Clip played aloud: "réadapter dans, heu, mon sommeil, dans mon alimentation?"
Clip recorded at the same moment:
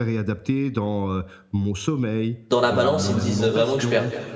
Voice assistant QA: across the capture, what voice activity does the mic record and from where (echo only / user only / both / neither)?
both